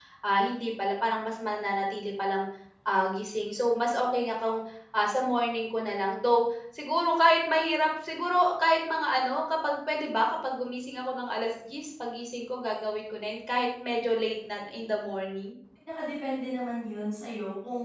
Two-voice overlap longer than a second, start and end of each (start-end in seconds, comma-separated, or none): none